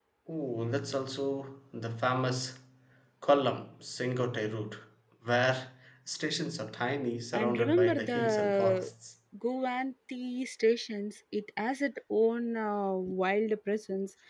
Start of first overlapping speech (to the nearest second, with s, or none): 7 s